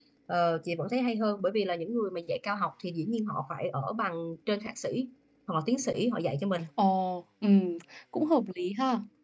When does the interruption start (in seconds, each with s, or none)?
none